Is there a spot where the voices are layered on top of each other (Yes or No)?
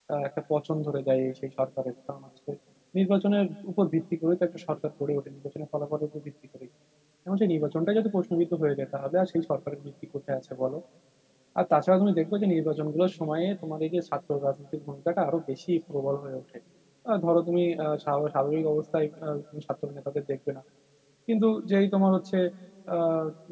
No